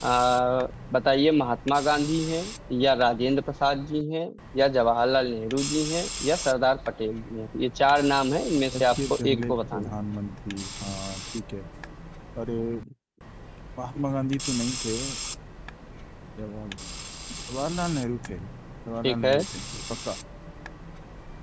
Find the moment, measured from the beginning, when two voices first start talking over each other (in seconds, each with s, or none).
8.7 s